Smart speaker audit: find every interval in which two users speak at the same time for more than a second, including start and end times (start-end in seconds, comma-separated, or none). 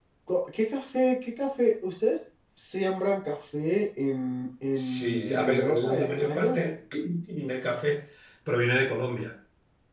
4.8-6.6